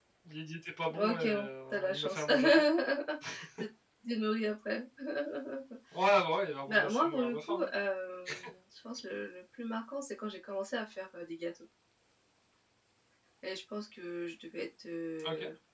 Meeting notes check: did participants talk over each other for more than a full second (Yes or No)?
Yes